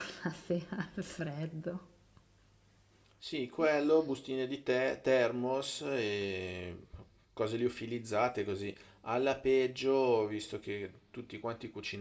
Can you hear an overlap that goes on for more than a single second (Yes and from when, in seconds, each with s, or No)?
No